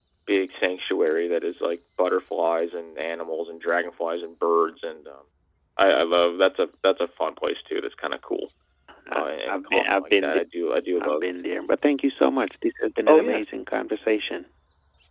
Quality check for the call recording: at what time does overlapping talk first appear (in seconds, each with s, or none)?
9.2 s